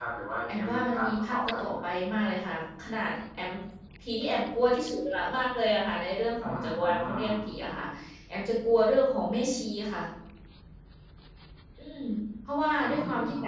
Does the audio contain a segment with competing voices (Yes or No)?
Yes